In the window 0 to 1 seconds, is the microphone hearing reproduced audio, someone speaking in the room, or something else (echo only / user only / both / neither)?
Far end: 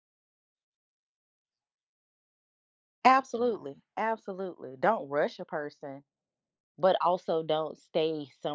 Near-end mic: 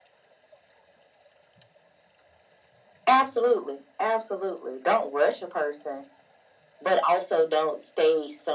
neither